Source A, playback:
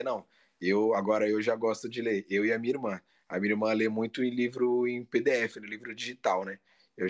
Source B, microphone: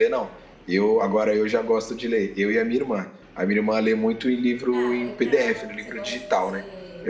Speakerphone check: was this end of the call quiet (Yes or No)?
No